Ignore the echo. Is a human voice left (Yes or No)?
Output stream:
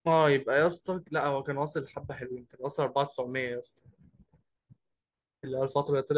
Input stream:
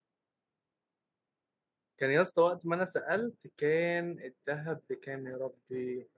Yes